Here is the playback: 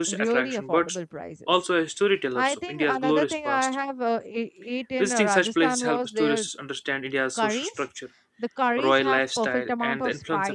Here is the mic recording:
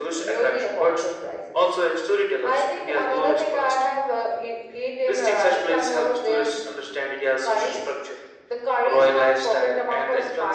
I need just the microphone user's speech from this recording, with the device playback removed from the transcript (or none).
none